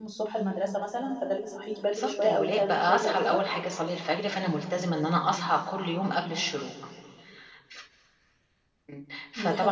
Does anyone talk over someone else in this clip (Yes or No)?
Yes